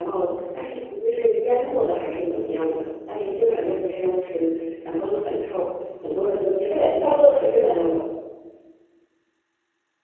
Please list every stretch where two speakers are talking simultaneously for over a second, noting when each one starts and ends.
6.7-8.0

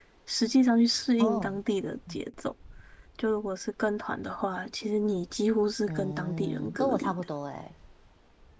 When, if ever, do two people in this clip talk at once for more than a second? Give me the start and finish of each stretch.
5.9-7.1

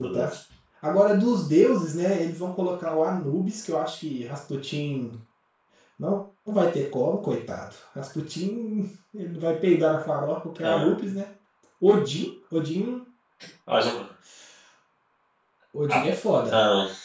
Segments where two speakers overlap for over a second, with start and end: none

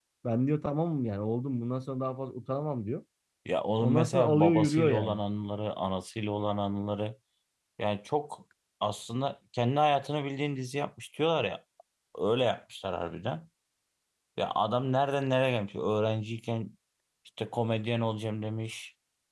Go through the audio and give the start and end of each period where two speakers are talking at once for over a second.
3.8-5.2

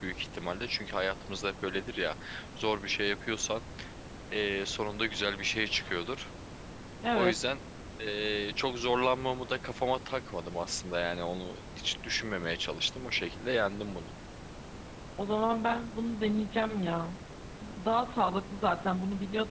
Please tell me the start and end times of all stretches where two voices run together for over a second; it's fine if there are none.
none

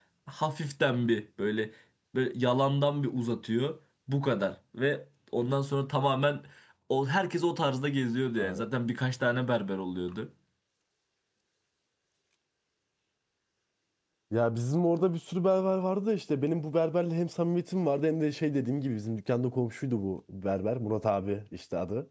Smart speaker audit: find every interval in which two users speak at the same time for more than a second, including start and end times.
none

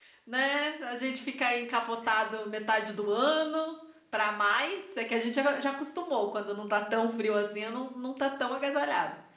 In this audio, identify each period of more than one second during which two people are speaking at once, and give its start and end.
none

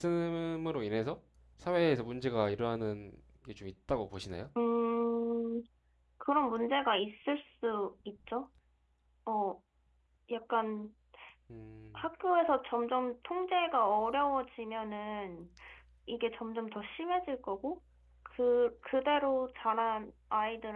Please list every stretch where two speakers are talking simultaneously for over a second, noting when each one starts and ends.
none

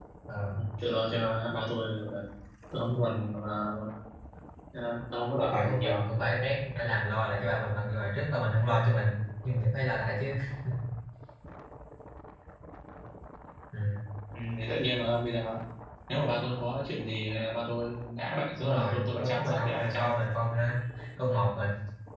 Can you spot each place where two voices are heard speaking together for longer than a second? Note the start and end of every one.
18.6-20.1

